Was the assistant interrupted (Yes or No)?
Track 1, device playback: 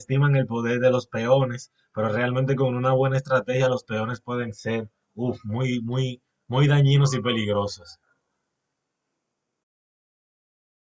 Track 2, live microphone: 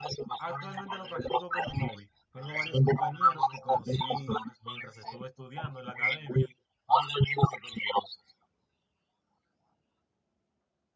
Yes